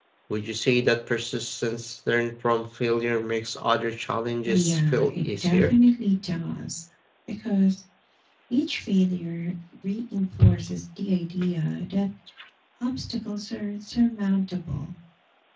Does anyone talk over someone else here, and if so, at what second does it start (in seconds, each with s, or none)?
4.4 s